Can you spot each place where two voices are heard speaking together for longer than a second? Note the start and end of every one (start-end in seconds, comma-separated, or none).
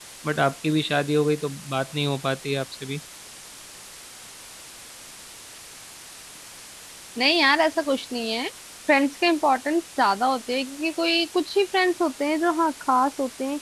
none